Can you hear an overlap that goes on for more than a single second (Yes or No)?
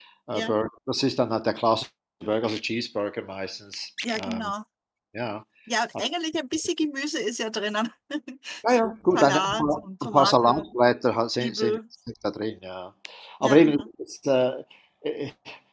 Yes